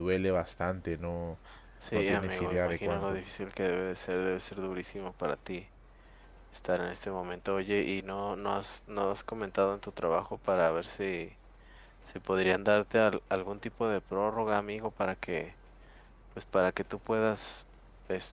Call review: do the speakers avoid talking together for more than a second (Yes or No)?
No